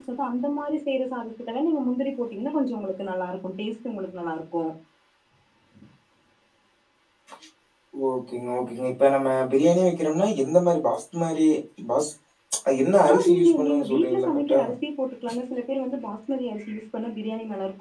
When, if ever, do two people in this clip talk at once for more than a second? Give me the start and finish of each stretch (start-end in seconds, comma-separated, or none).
13.1-14.6